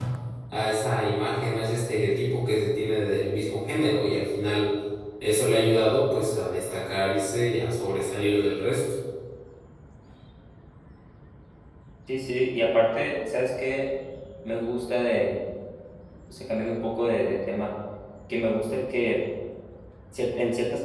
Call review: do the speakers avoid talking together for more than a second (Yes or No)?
Yes